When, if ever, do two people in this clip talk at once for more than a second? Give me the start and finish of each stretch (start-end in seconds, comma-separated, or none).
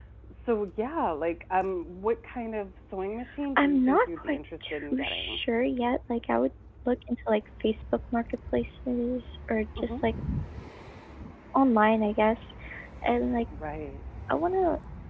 3.6-5.4